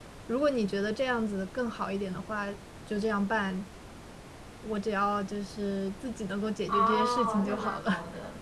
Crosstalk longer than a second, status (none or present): present